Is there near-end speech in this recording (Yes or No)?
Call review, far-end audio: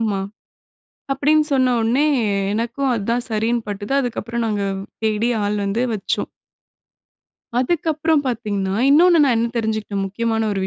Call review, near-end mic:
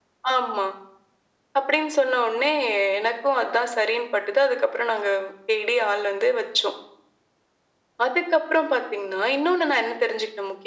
No